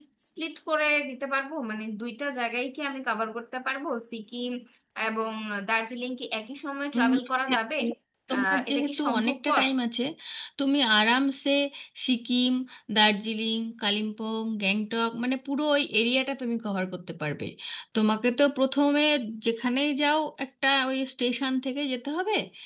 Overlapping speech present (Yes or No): Yes